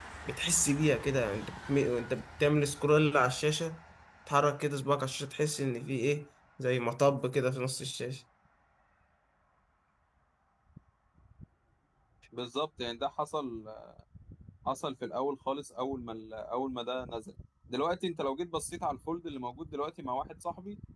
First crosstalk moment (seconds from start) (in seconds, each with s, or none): none